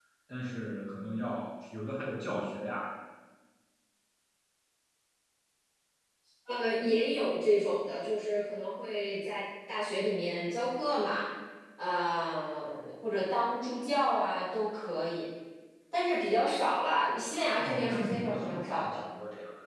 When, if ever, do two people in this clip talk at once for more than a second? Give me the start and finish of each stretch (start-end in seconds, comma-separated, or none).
17.6-19.1